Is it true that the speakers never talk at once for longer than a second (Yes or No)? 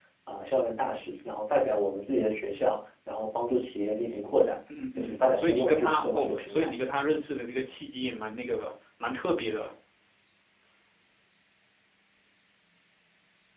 No